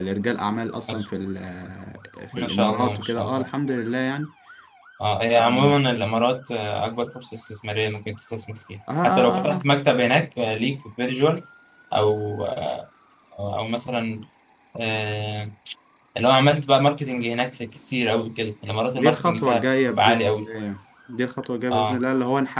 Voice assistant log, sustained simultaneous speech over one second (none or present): present